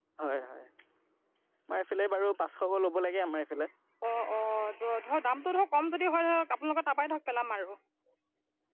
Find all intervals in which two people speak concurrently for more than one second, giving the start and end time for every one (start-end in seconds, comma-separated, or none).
none